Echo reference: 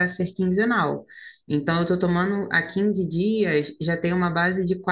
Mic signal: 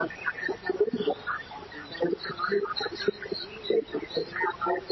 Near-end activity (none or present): none